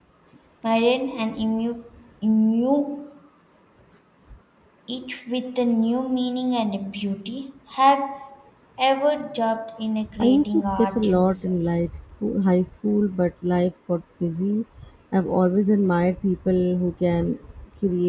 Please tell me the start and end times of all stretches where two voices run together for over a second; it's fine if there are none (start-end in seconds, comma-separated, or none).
10.2-11.6